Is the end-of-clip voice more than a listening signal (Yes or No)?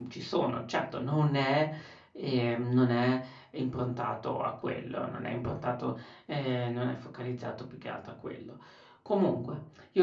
No